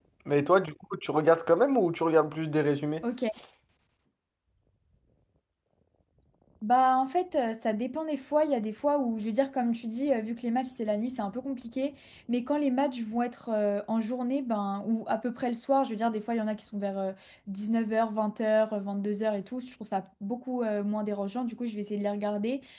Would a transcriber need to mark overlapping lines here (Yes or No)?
No